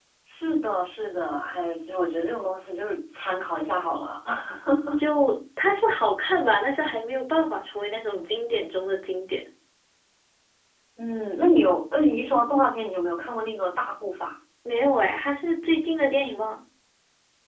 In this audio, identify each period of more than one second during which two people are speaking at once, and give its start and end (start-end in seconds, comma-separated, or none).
none